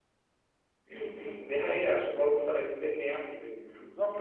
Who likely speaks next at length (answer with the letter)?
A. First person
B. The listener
B